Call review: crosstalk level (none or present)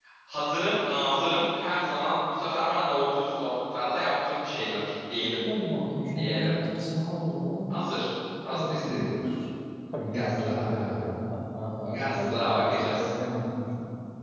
present